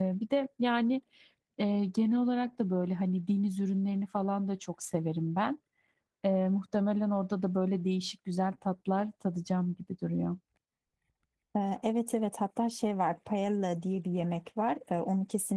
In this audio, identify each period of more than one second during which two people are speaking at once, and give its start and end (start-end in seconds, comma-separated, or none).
none